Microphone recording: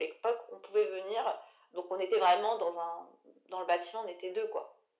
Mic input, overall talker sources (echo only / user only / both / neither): echo only